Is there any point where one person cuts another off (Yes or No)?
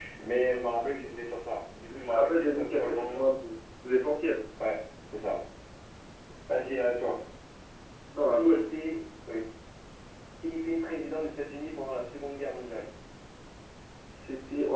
Yes